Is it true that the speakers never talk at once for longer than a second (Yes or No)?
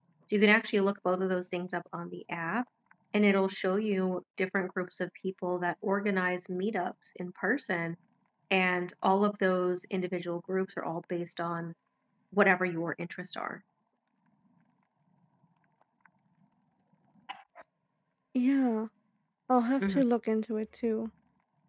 Yes